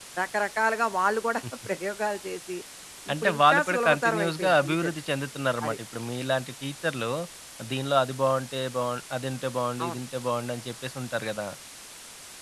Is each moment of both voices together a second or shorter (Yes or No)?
No